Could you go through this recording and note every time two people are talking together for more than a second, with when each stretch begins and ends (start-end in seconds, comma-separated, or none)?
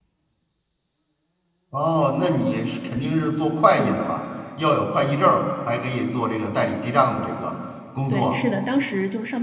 none